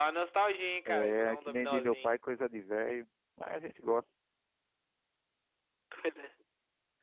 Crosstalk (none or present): present